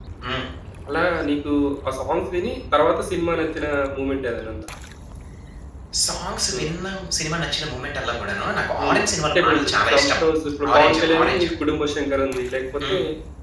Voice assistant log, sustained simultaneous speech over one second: present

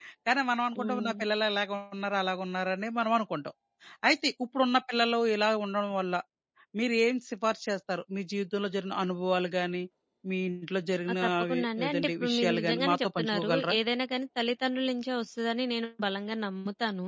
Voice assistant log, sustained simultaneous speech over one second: present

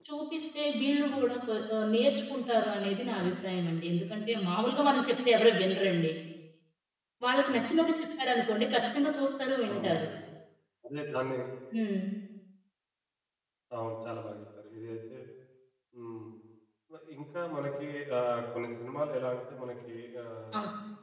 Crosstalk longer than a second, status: none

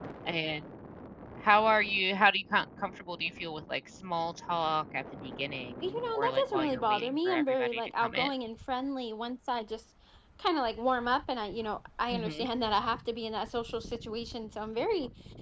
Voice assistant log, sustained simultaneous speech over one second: present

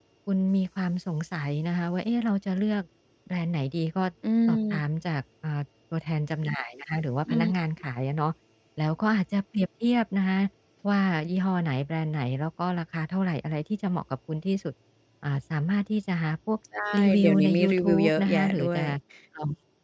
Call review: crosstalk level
present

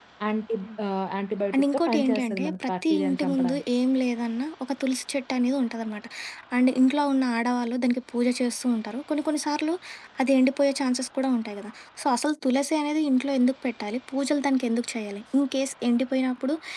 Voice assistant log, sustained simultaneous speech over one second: present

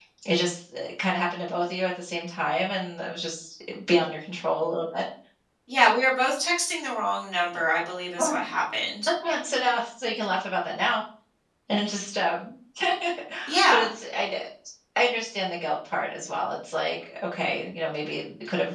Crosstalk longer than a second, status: none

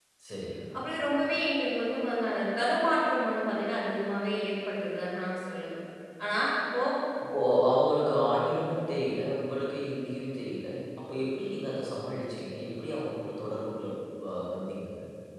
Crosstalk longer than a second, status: none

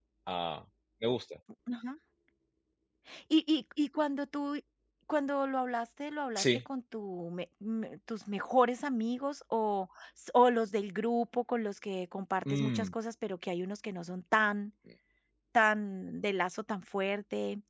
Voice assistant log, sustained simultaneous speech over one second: none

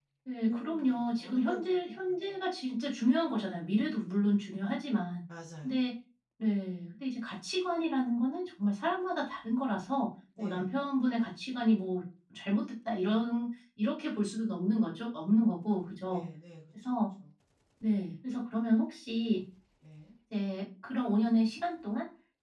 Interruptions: present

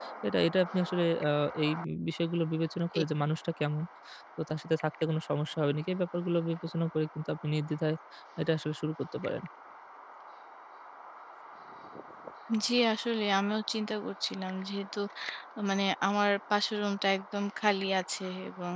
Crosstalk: none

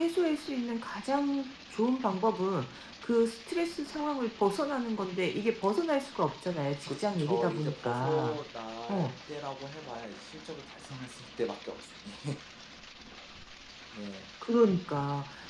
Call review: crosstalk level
present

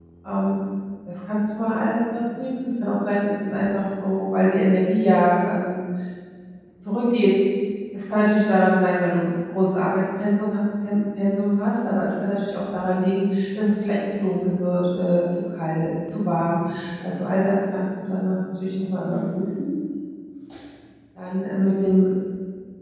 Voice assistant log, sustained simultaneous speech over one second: none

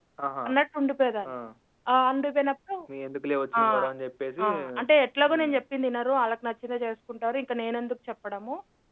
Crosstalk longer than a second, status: none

